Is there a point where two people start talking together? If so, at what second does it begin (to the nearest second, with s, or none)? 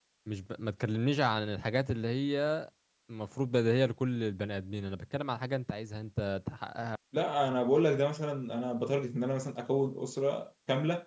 none